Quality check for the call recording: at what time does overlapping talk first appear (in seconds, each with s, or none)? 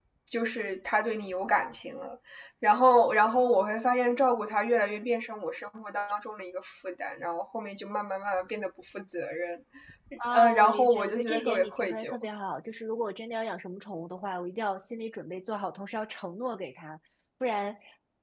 10.3 s